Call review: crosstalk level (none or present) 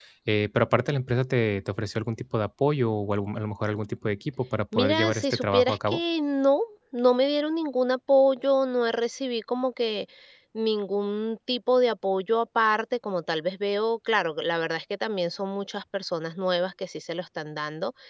present